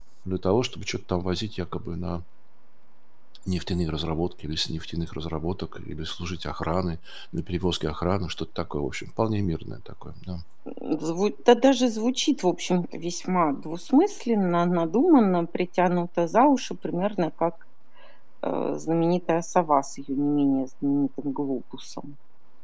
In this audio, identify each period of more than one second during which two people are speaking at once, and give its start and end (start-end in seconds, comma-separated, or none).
none